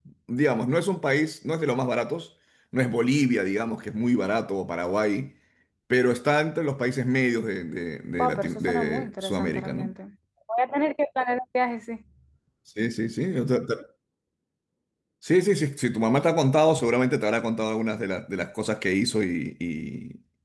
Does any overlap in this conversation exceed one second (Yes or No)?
Yes